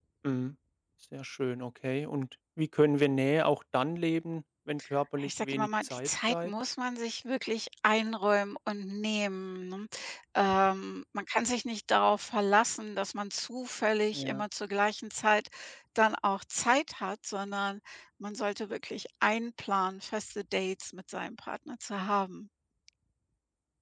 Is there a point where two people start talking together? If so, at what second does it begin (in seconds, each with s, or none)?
5.2 s